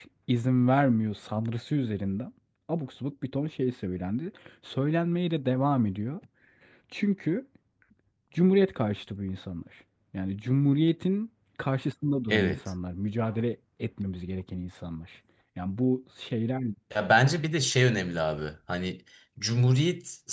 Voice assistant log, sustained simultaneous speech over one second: none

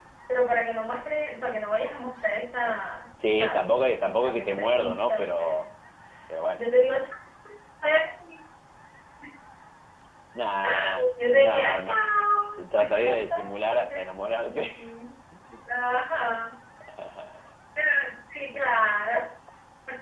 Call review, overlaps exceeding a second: present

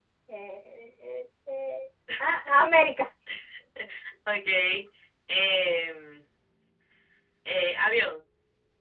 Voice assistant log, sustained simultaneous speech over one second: none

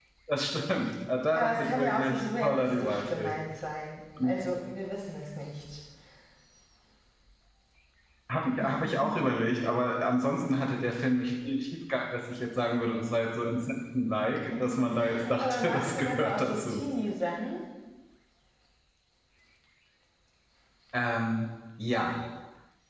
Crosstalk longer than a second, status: present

